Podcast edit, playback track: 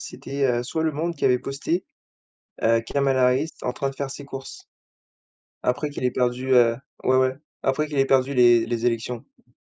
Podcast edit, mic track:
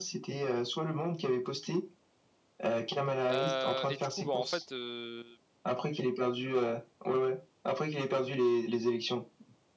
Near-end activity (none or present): present